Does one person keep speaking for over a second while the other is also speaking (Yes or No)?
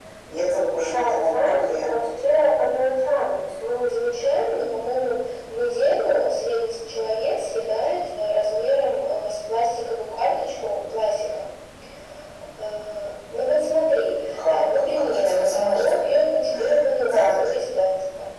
Yes